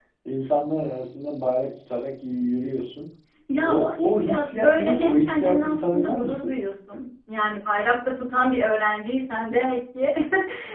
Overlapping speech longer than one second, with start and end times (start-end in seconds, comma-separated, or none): 3.6-6.5